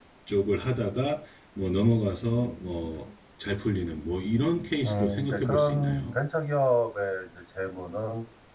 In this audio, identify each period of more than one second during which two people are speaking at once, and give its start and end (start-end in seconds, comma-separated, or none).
4.8-6.1